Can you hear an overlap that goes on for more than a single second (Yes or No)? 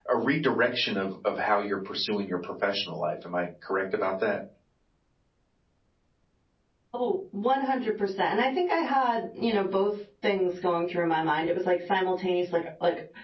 No